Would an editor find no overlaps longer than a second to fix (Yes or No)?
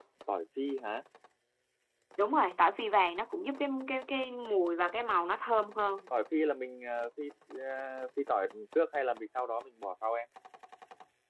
Yes